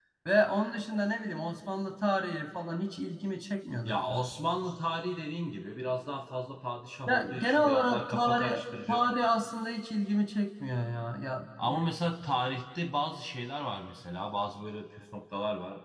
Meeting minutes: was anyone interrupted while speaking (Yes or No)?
Yes